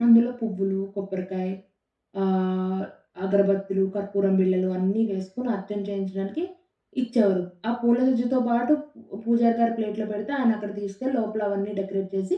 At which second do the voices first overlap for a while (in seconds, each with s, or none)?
none